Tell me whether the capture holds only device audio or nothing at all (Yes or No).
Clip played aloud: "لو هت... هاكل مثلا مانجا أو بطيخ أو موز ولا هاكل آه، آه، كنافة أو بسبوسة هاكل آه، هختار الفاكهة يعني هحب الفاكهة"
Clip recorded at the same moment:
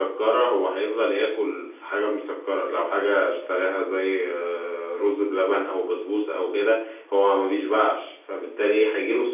No